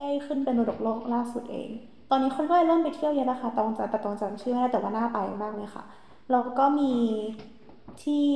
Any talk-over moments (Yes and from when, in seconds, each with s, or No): No